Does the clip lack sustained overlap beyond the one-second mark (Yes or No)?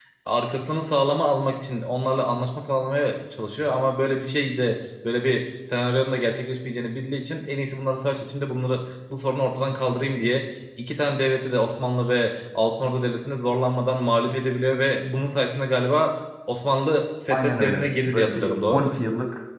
No